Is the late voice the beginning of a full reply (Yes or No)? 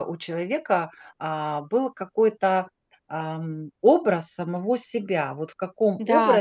No